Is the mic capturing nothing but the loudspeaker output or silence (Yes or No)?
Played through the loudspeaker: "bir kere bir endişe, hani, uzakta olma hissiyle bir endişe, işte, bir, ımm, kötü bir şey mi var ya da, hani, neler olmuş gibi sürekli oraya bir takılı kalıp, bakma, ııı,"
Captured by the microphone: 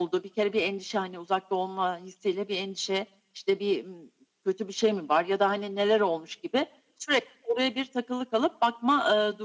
Yes